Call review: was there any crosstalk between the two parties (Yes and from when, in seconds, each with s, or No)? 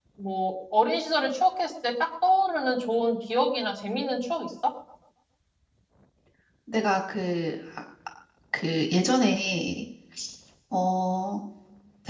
No